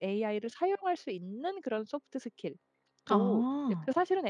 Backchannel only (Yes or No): Yes